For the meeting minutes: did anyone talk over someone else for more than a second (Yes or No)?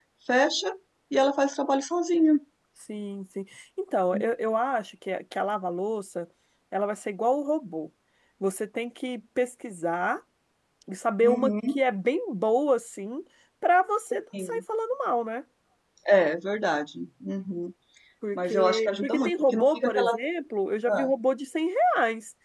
Yes